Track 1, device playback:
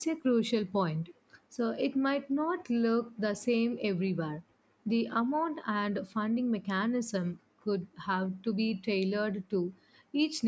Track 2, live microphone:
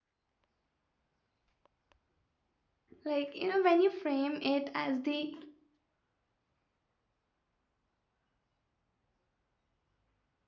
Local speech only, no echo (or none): like, you know, when you frame it as the